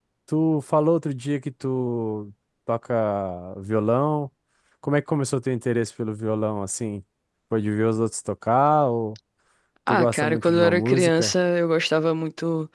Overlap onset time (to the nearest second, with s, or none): 10 s